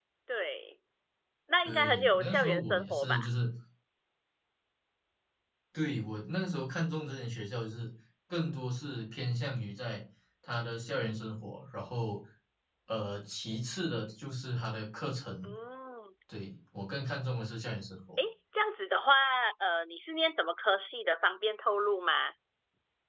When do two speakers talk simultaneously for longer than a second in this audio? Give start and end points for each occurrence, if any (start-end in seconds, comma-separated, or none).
1.6-3.2